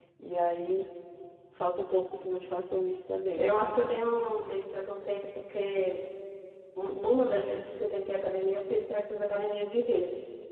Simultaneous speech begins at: none

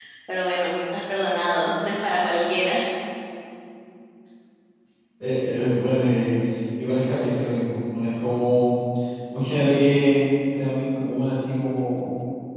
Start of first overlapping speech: none

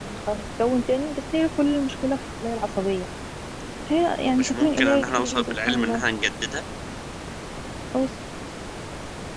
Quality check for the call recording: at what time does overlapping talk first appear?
4.4 s

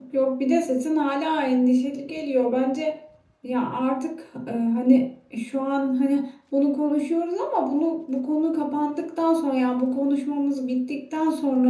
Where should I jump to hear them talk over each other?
none

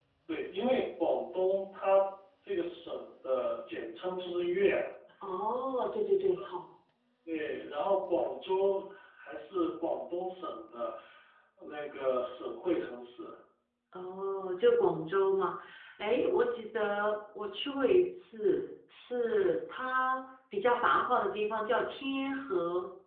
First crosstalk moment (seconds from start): none

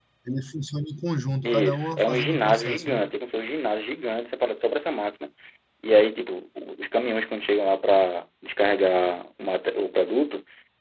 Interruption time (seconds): 1.4 s

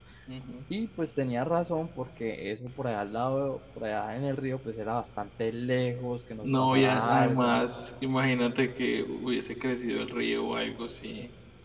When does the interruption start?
6.4 s

